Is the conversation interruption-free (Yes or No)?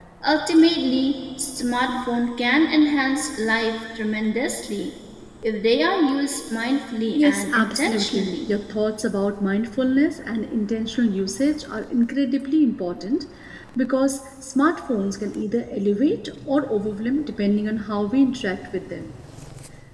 No